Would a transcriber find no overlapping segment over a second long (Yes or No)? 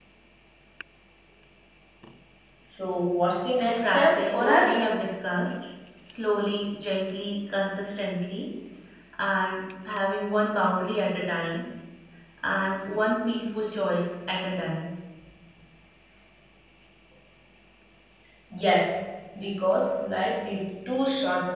No